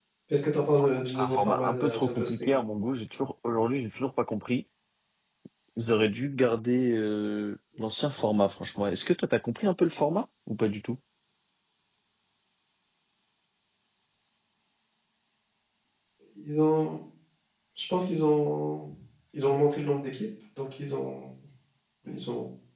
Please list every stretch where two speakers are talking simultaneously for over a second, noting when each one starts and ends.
0.7-2.5

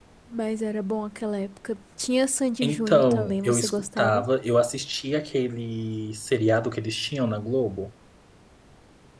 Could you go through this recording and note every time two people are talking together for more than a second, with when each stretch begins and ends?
2.6-4.2

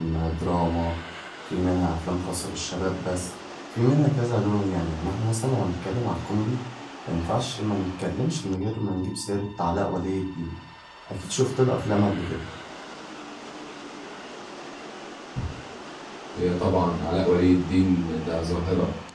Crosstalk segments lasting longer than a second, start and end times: none

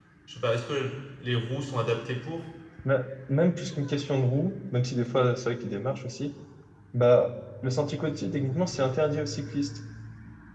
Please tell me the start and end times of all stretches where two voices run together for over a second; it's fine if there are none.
none

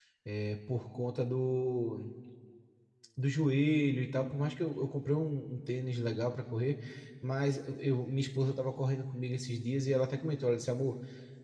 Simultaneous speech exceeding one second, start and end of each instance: none

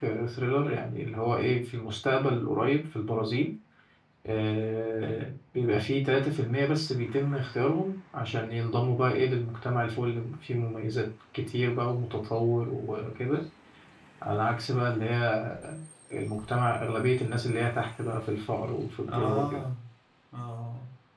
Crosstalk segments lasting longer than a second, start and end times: none

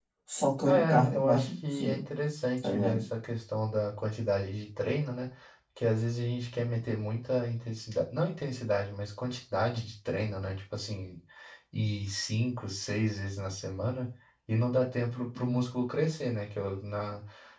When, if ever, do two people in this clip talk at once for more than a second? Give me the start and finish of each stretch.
0.6-2.0

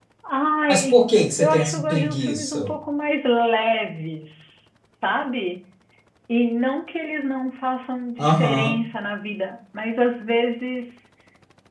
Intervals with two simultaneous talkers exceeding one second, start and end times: 1.4-2.6

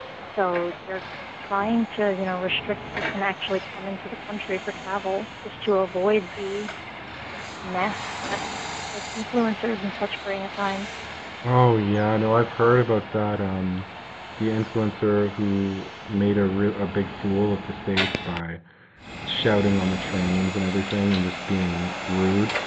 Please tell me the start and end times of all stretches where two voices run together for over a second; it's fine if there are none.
none

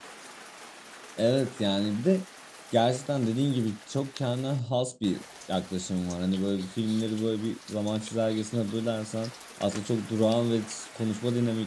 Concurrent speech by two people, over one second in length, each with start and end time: none

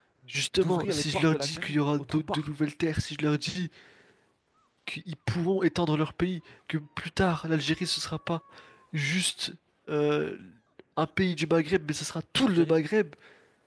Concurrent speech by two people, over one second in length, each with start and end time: 0.6-2.5

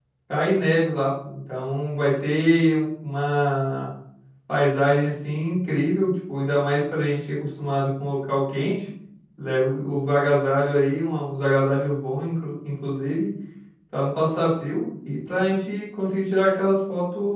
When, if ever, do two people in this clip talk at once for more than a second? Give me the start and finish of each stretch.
none

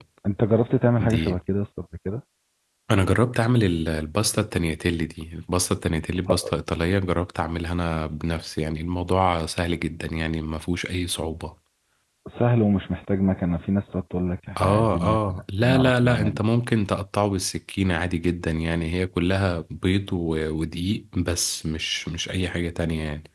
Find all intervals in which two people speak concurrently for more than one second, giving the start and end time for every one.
14.6-16.5

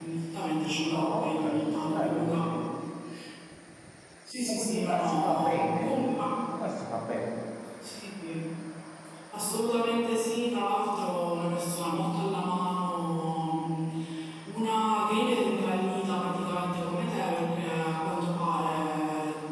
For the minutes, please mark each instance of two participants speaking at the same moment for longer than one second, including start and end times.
0.9-2.4, 4.5-6.0

